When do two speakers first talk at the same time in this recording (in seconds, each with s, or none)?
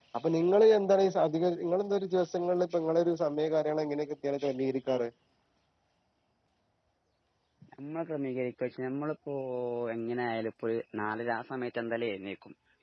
none